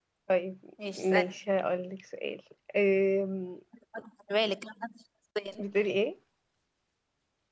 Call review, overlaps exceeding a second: none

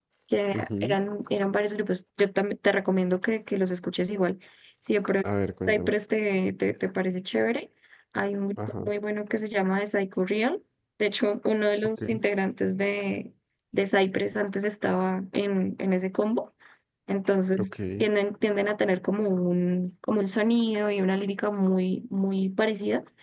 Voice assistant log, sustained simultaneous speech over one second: none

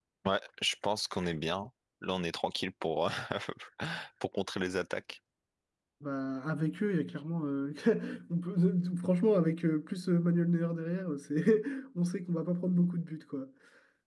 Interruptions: none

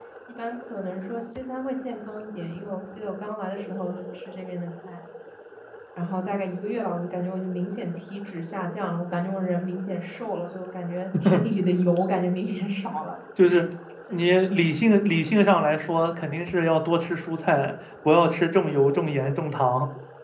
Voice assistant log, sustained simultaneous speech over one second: none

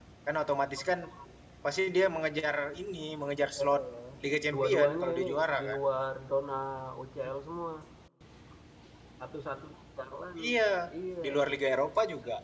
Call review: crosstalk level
present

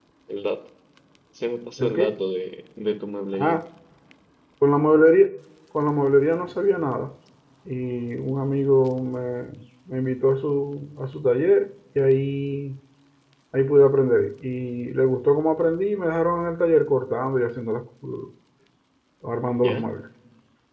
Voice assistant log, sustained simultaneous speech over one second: none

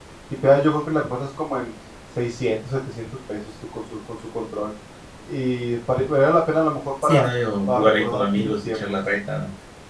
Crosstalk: present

